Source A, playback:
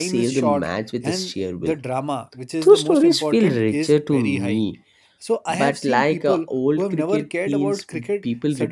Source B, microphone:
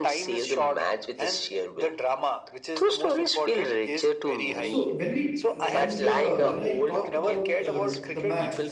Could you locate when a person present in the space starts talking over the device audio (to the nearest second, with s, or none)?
4 s